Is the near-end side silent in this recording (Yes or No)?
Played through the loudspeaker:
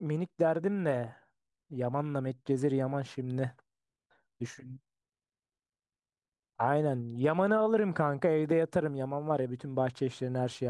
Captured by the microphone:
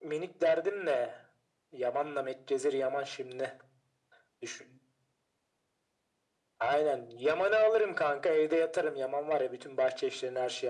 Yes